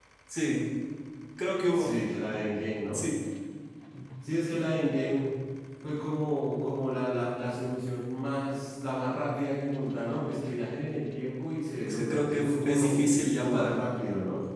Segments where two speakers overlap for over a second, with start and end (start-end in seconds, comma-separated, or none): 11.9-13.8